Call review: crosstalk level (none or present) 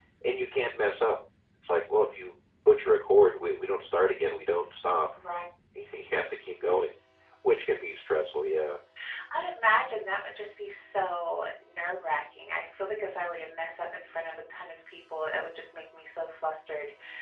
none